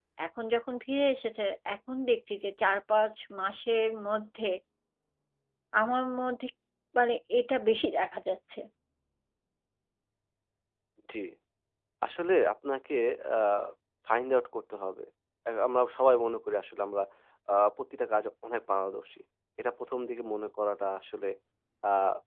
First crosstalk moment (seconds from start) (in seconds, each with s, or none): none